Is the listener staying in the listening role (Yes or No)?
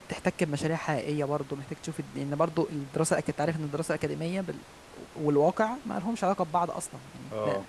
Yes